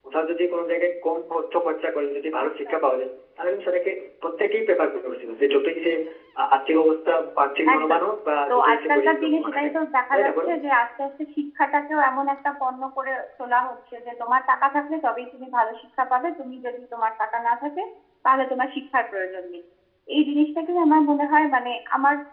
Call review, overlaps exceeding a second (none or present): present